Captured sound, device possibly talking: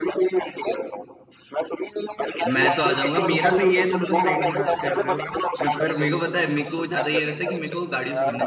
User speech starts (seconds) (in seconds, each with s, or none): 2.5 s